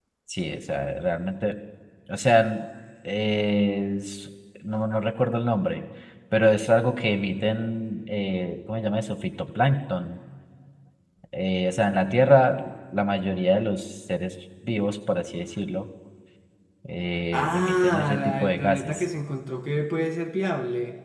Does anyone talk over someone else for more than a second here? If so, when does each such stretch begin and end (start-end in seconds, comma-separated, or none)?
17.3-19.1